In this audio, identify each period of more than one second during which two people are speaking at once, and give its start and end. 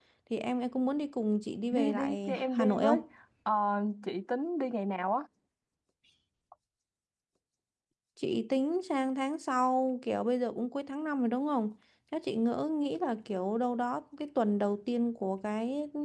1.7-3.0

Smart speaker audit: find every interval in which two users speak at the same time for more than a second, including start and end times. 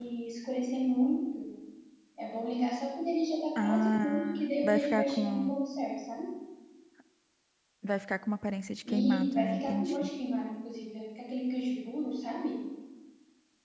3.6-5.5, 8.9-10.1

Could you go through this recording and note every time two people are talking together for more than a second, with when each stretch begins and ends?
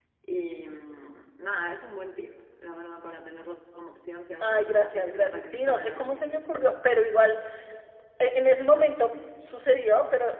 4.4-6.5

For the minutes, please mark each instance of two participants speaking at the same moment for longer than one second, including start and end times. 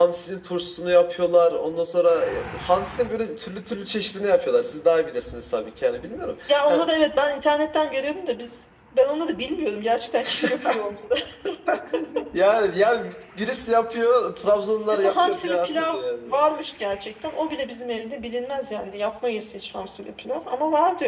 14.9-16.4

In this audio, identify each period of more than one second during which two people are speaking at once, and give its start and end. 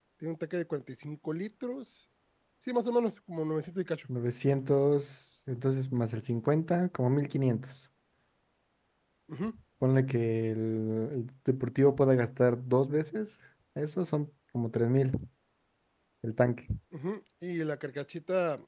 none

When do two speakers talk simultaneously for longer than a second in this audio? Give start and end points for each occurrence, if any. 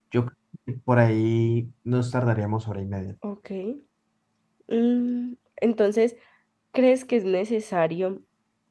none

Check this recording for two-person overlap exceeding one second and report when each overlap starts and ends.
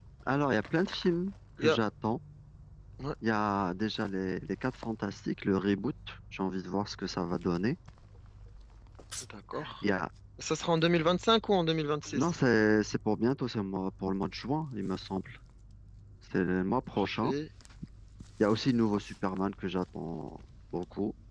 none

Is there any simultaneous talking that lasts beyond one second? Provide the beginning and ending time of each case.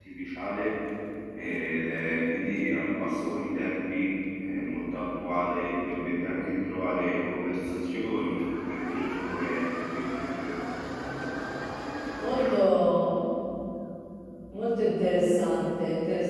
none

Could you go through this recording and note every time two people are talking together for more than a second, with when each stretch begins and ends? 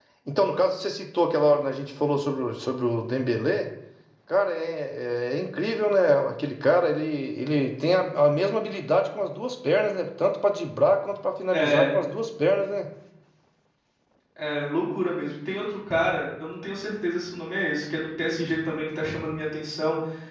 none

